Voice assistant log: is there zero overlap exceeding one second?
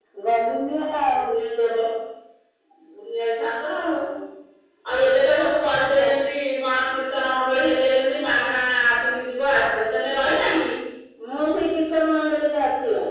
Yes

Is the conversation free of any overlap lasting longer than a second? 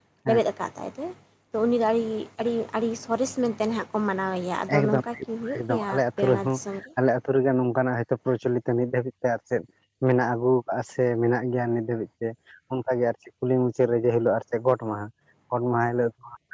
Yes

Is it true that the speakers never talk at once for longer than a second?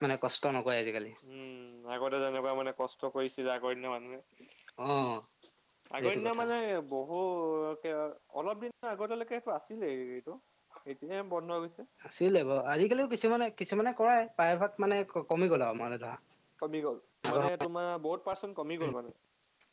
Yes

